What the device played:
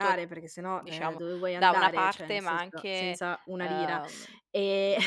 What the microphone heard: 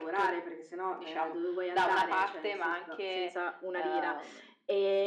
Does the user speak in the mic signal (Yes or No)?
No